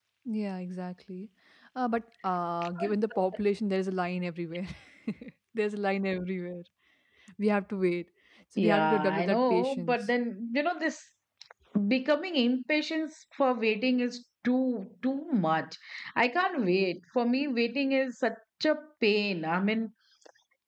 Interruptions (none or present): present